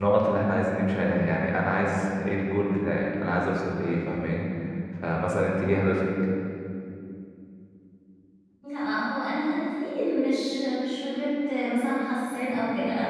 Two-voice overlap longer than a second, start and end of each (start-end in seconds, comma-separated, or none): none